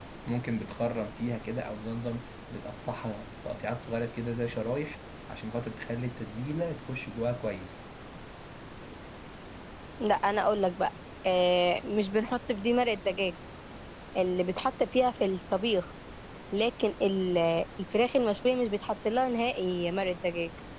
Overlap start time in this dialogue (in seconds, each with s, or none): none